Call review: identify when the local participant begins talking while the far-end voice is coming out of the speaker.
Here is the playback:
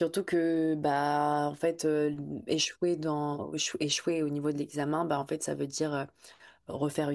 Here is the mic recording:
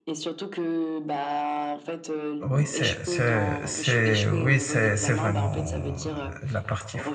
2.4 s

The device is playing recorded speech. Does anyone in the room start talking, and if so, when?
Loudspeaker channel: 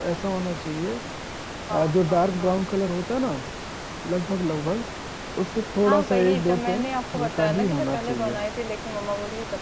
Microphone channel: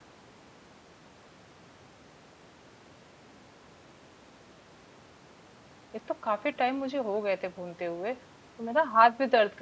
6.0 s

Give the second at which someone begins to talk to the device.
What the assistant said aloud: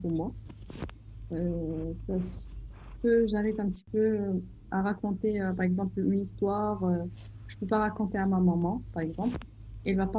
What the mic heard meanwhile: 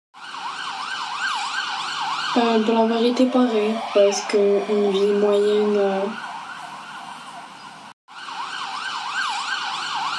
2.4 s

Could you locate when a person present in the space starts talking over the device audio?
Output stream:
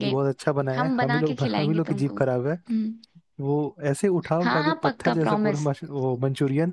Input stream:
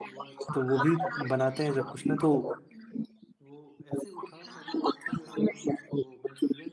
0.5 s

